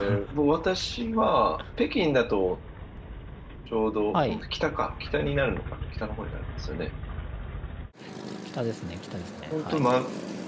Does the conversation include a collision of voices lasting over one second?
No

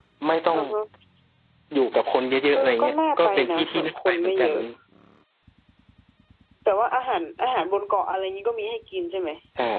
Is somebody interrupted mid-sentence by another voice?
Yes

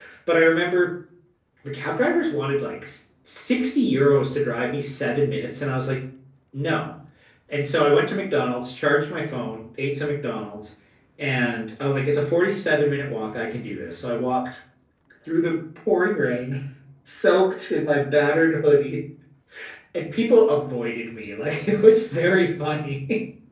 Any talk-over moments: No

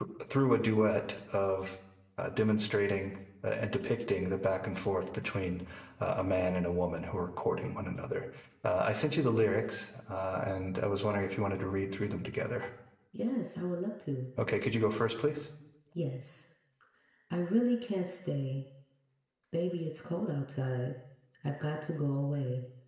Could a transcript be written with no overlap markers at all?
Yes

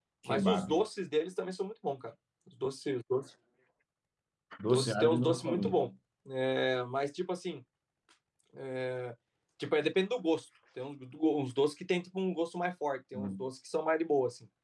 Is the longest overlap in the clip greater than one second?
Yes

